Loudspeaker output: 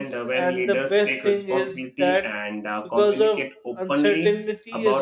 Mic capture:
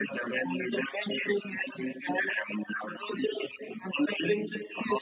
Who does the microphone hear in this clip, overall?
echo only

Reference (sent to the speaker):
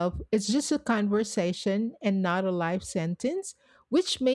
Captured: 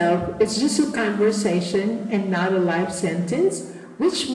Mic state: echo only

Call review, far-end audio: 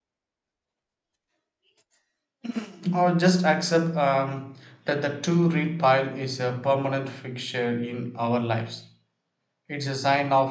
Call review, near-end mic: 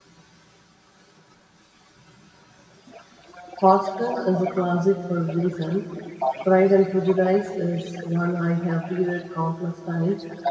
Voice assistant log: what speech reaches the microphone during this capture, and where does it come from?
both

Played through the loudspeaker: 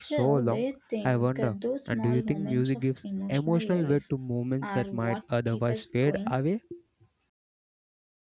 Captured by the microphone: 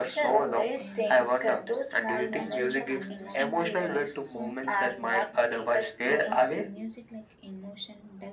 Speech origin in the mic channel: both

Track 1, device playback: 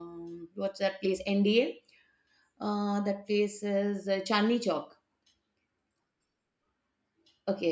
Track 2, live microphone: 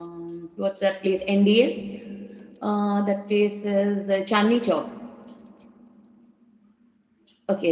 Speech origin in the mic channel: echo only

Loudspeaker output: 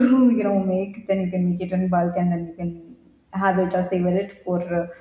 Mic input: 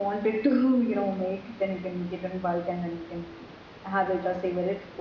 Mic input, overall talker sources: echo only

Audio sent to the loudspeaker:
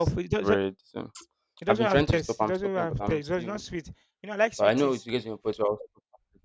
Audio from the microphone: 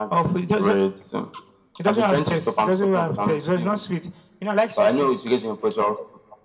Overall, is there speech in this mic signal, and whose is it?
echo only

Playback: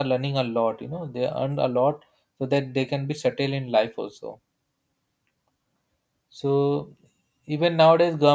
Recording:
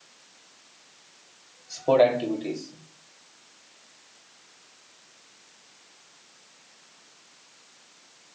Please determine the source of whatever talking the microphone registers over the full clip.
user only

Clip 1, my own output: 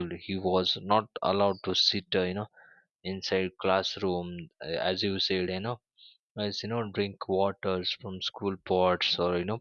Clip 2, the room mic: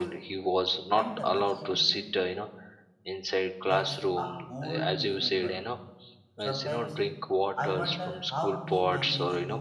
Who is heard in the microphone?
both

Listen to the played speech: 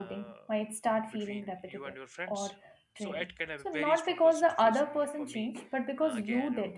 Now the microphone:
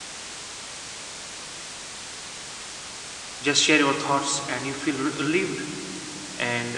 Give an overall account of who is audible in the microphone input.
user only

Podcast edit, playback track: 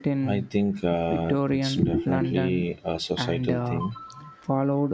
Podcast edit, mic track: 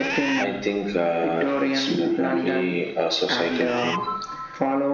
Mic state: echo only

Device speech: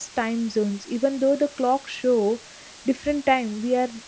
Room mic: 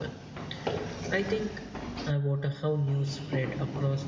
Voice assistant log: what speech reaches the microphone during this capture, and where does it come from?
user only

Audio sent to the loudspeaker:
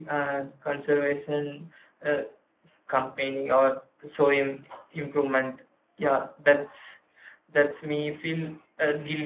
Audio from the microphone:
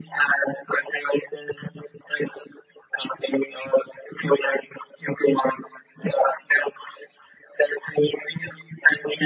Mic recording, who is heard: echo only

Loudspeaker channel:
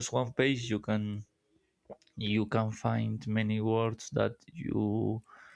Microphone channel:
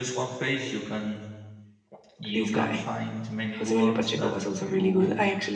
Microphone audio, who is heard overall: both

